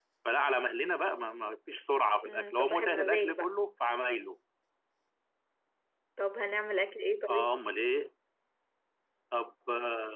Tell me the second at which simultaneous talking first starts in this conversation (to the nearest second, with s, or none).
2 s